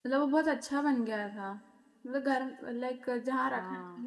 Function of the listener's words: listening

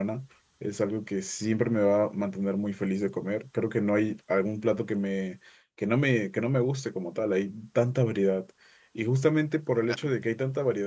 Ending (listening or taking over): listening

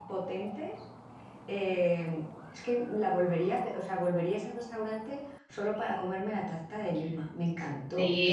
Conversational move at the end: taking over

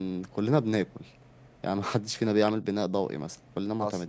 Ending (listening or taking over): listening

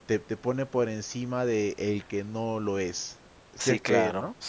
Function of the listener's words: taking over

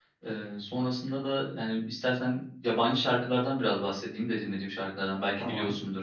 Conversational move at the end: listening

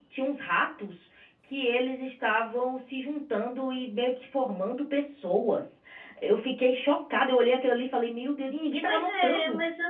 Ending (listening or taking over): taking over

